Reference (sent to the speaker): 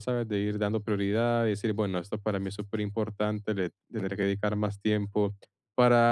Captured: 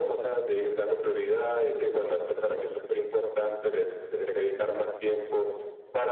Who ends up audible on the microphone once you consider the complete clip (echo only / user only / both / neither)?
echo only